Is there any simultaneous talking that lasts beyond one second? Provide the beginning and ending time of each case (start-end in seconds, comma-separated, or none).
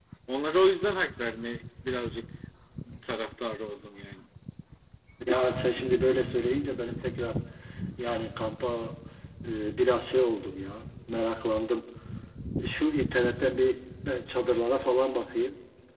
none